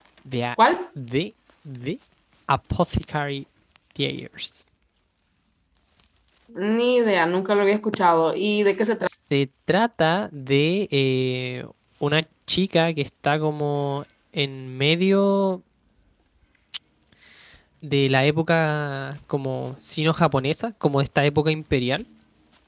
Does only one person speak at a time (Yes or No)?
Yes